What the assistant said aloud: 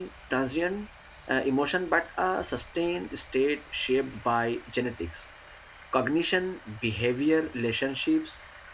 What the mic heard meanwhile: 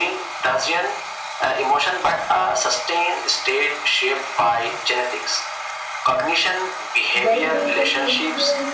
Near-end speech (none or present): present